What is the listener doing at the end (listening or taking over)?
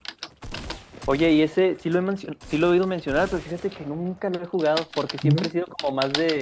listening